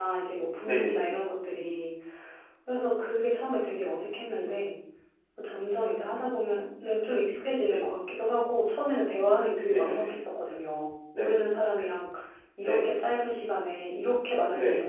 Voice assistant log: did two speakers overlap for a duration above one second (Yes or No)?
No